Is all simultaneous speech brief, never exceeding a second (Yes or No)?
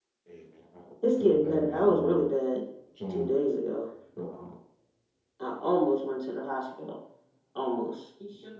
No